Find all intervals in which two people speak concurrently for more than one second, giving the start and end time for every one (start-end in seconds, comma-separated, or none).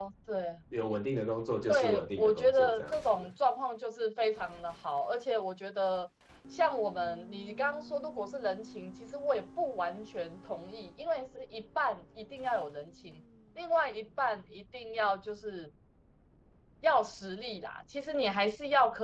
1.7-3.3